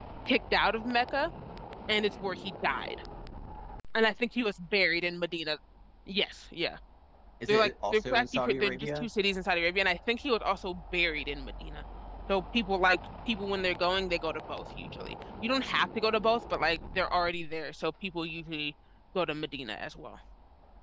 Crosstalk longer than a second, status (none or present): present